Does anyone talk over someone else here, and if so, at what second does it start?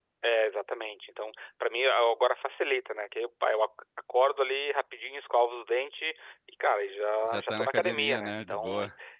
7 s

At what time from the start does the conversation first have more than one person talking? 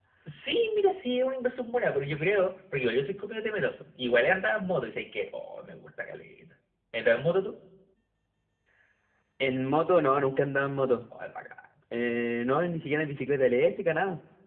none

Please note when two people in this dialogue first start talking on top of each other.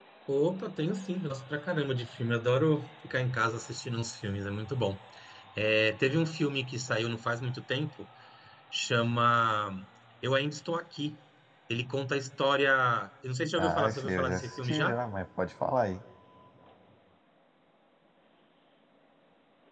14 s

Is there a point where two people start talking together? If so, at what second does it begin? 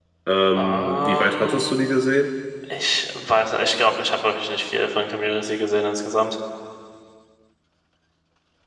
1 s

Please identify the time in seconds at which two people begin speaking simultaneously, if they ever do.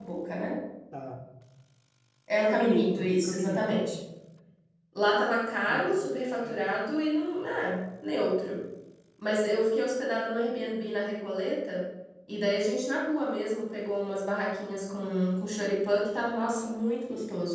2 s

